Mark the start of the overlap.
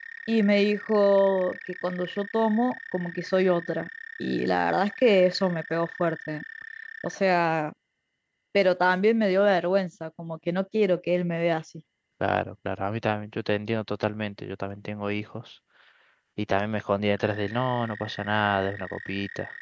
none

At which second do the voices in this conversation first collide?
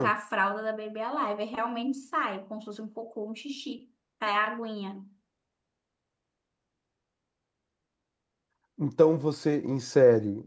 none

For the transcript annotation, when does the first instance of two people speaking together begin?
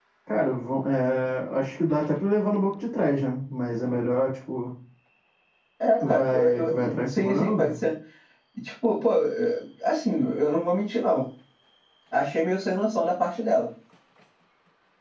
6.0 s

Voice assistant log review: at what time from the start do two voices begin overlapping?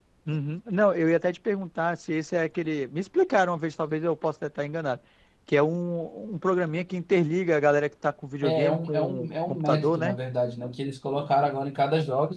8.4 s

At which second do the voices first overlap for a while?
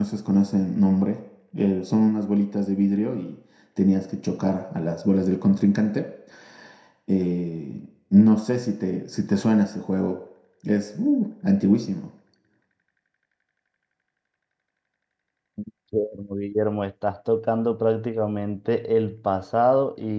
none

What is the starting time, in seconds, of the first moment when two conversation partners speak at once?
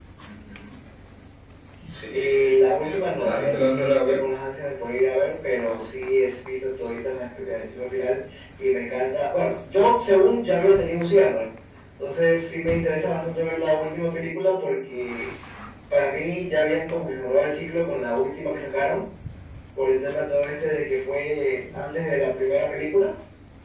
2.1 s

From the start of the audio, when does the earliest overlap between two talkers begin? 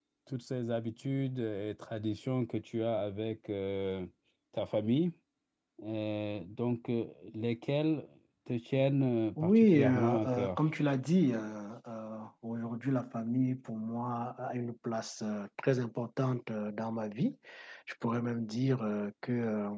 9.4 s

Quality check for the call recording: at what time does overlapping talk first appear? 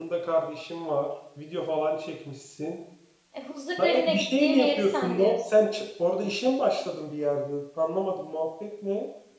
3.8 s

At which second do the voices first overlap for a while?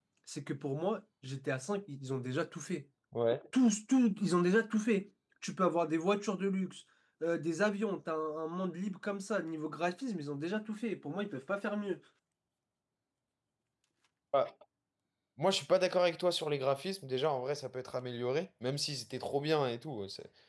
none

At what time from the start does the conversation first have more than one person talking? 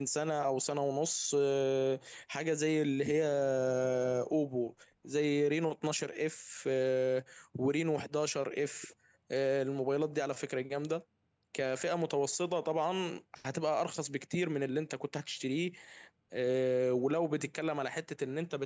none

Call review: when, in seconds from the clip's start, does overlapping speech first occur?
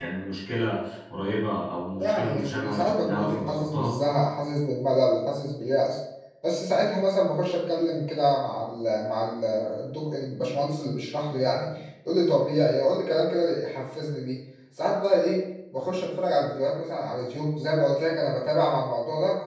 2.0 s

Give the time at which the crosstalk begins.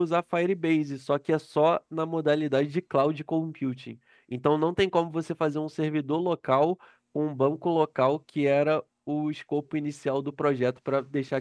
none

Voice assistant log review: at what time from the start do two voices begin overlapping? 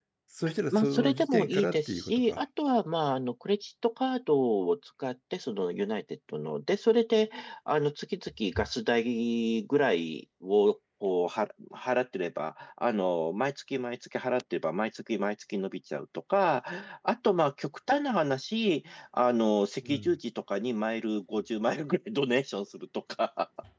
0.7 s

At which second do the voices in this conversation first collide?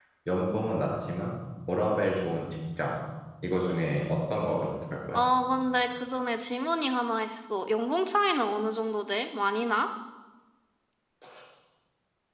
none

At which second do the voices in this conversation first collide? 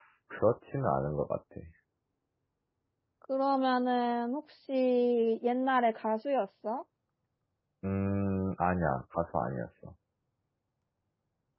none

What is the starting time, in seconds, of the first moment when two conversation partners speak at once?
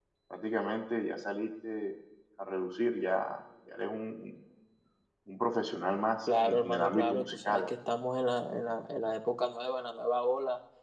6.3 s

